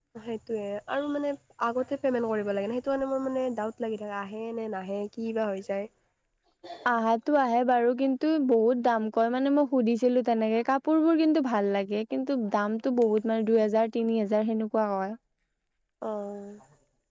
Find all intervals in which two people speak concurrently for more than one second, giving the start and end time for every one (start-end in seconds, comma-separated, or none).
none